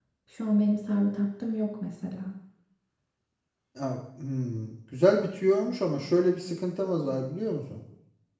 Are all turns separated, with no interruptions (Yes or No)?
Yes